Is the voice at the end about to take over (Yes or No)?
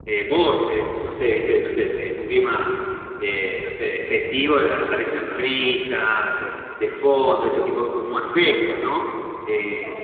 No